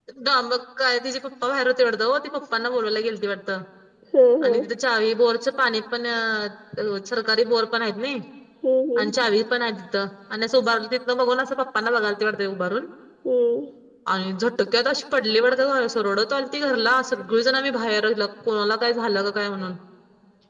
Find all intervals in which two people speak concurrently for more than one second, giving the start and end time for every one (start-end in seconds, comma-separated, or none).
none